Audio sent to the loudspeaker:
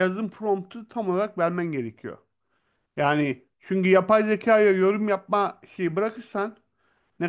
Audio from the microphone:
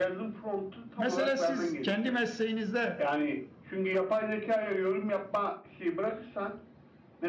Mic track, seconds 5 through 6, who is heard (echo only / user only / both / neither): echo only